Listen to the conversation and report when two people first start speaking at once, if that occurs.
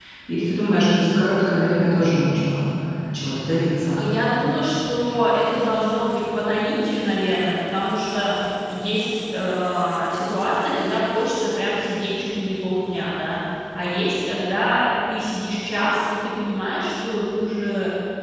none

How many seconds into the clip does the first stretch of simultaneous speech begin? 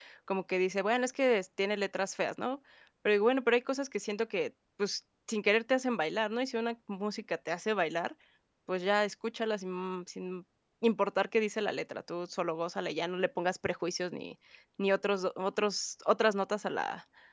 none

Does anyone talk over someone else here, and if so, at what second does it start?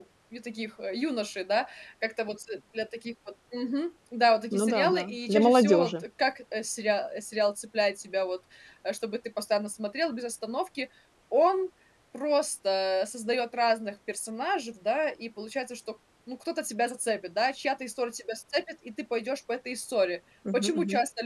4.6 s

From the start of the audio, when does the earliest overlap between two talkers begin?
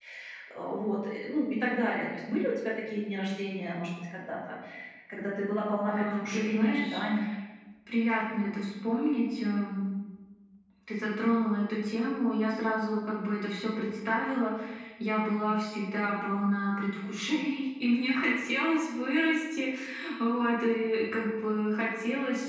5.7 s

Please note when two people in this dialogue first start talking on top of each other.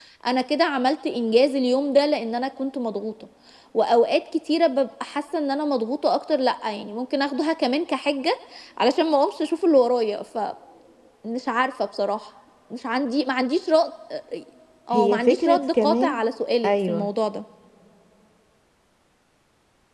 14.9 s

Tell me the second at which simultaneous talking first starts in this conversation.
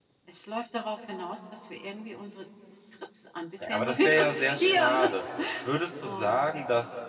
3.6 s

